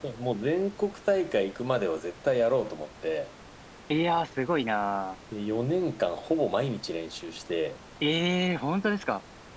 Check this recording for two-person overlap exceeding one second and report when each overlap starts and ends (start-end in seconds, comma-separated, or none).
none